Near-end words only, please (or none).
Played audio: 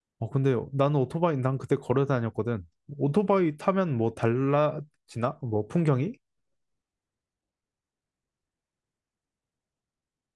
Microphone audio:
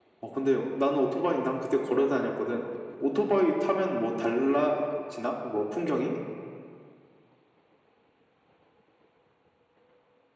none